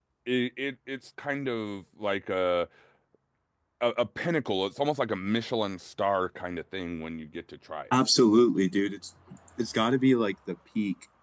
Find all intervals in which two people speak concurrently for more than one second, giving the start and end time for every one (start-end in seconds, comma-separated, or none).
none